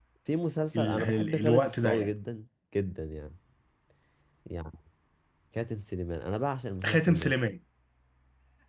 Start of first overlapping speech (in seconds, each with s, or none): 0.8 s